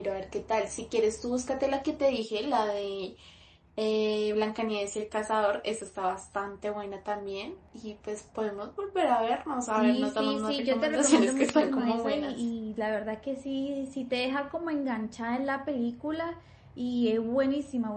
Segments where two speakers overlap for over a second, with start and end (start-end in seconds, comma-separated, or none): 9.7-12.5